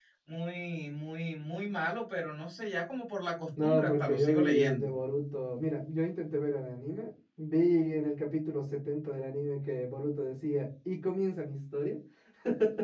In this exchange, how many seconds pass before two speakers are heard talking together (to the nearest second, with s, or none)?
4 s